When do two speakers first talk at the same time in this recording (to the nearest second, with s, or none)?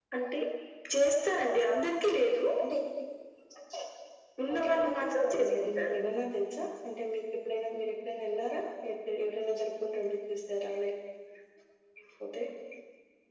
5 s